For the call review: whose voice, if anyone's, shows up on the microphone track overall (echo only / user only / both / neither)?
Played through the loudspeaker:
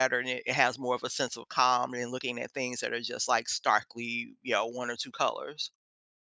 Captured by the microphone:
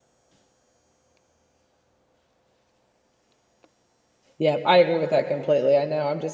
user only